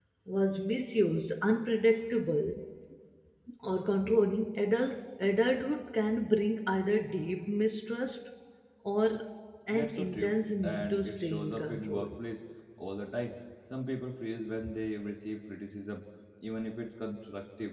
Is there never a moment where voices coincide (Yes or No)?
No